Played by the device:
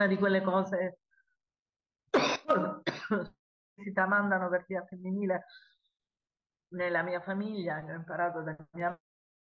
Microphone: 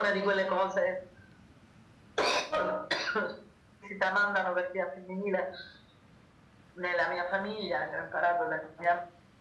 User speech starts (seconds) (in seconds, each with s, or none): none